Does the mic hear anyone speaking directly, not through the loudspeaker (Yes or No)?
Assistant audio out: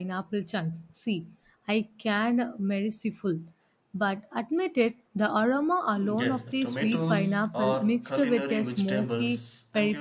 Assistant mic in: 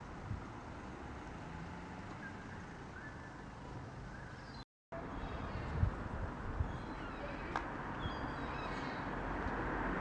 No